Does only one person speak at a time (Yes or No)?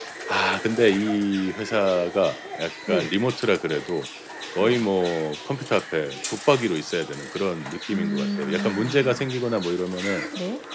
No